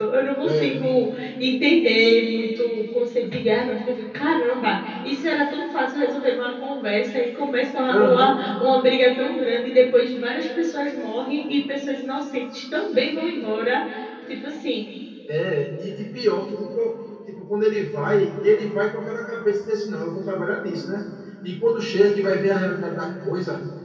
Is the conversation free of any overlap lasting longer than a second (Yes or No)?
Yes